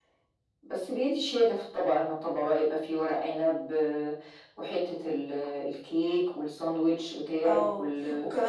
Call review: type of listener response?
taking over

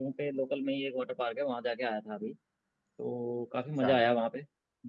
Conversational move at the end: listening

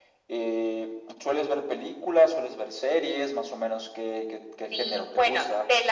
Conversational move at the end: taking over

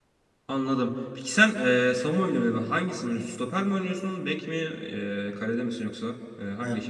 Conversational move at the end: taking over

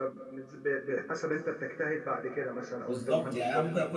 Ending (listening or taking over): taking over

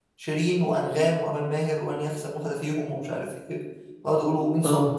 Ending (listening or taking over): listening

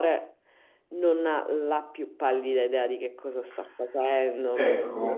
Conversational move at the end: taking over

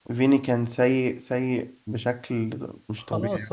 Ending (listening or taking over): taking over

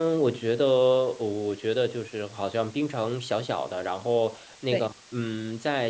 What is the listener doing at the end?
listening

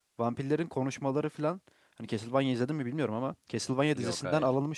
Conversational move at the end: listening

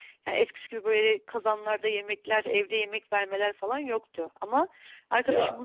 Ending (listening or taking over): listening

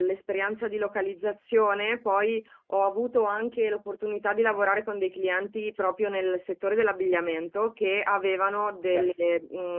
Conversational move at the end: listening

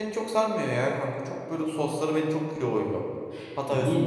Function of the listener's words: listening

